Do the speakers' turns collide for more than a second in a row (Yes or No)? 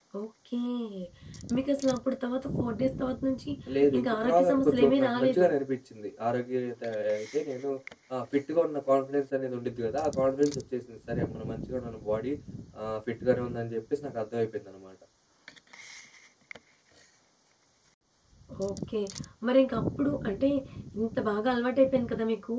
Yes